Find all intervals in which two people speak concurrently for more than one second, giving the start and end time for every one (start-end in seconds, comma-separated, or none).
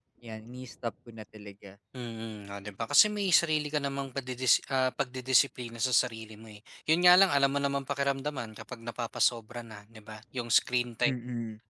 none